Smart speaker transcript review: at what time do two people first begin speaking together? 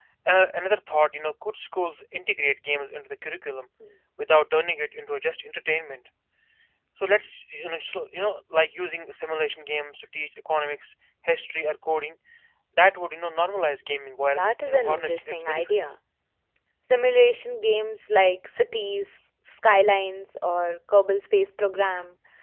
14.4 s

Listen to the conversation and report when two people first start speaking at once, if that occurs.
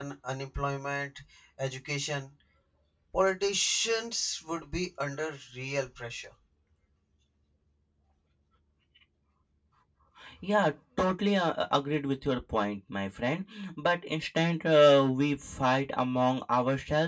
none

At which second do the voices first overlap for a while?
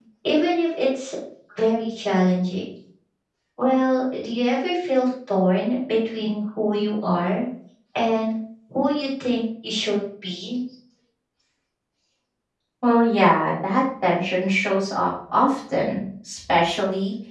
none

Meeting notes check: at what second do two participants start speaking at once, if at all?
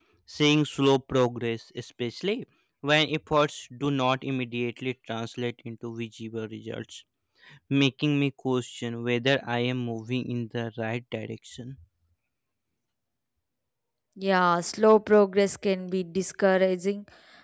none

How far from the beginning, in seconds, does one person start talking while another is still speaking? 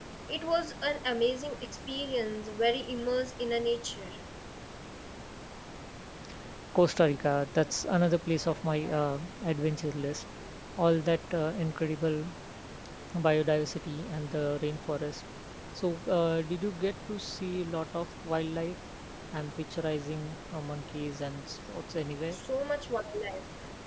none

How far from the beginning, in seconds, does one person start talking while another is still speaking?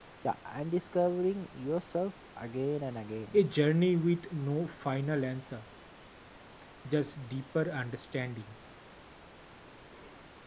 none

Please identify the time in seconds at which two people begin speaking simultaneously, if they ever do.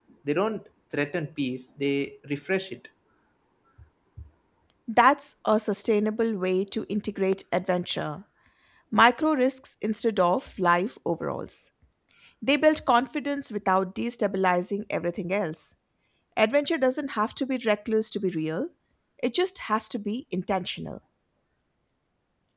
none

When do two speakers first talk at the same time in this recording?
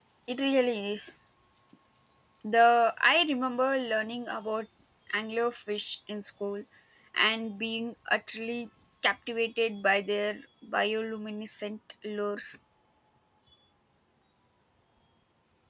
none

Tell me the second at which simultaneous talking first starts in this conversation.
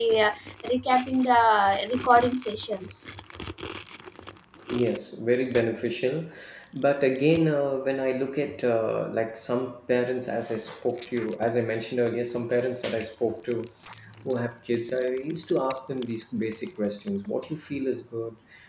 none

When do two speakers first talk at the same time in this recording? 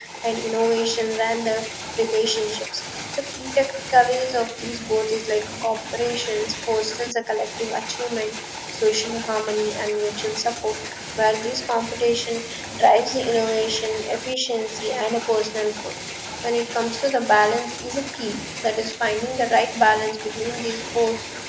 none

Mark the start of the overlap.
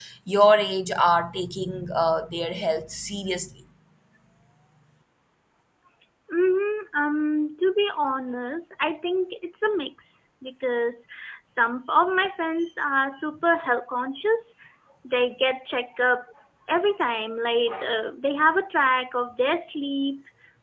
none

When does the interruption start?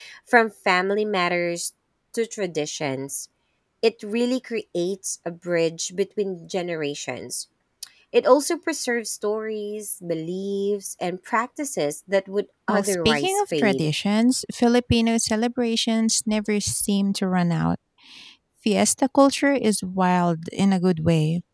12.7 s

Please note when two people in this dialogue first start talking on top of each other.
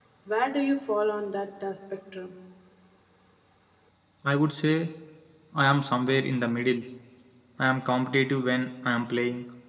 none

